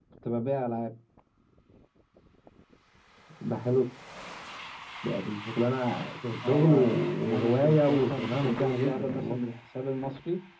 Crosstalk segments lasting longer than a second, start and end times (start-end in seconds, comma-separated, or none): 6.4-9.4